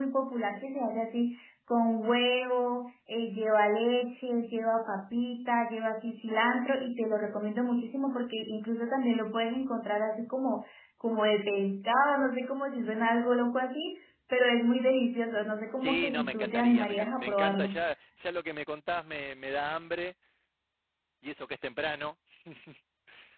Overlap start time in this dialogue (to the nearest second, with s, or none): 16 s